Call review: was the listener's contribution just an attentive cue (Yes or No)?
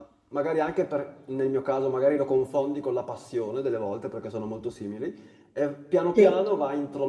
Yes